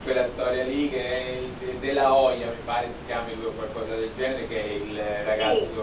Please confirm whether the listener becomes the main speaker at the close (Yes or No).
No